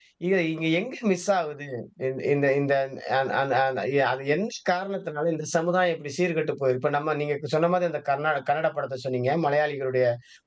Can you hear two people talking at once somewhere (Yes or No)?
No